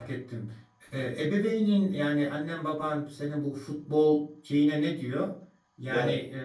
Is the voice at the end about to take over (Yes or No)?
No